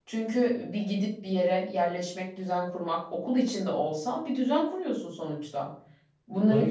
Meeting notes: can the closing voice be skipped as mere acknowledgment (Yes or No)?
Yes